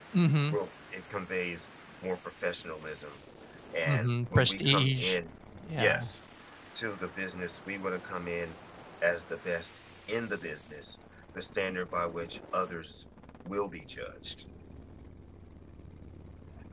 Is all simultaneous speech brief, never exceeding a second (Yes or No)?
No